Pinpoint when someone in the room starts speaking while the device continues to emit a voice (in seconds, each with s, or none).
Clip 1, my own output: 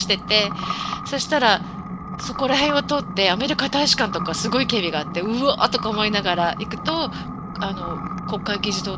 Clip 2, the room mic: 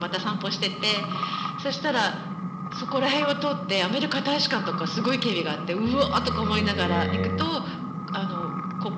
5.8 s